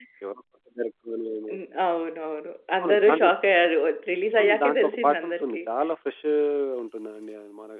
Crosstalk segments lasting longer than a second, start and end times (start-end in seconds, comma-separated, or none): 4.4-5.6